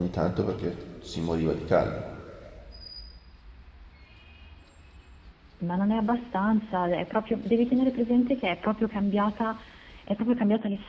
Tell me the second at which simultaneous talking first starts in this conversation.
none

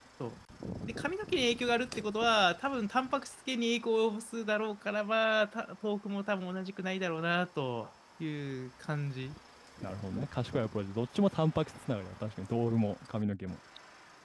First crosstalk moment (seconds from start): none

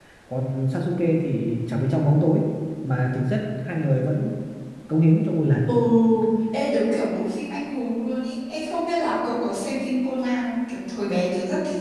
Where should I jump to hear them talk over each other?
none

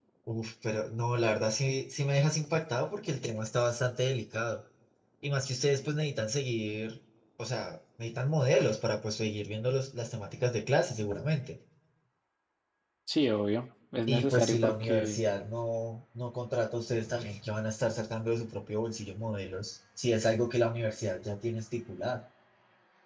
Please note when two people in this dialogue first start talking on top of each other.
14.1 s

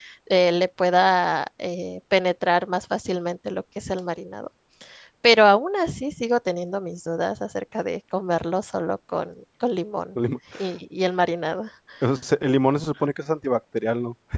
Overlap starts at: none

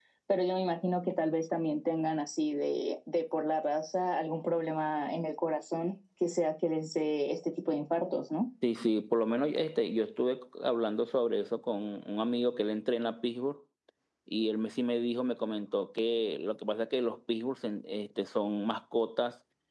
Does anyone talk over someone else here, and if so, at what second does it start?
none

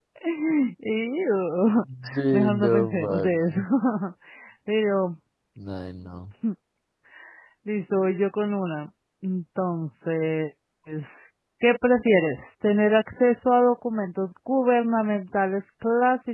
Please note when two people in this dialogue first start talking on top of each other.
2.3 s

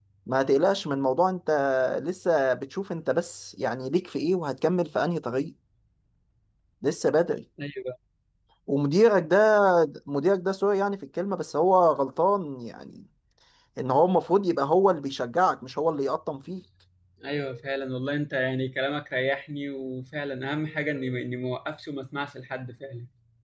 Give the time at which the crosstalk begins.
none

